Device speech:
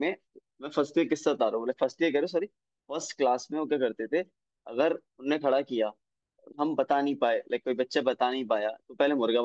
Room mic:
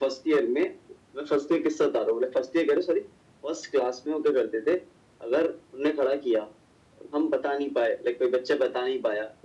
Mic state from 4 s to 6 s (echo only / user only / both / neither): echo only